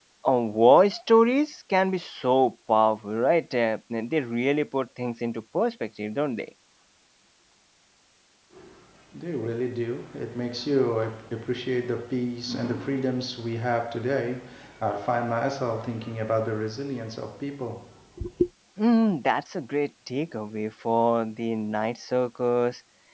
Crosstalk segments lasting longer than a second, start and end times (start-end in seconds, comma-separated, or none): none